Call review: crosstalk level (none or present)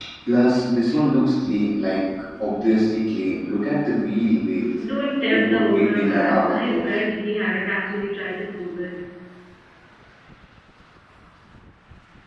present